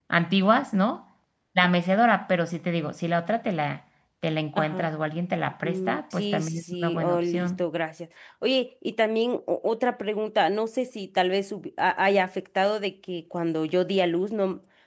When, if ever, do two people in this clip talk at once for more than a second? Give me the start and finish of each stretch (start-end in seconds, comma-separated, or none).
5.6-7.6